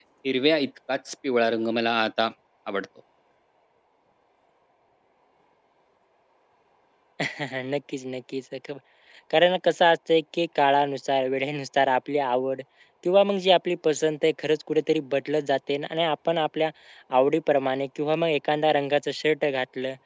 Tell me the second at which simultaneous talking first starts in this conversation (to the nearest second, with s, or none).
none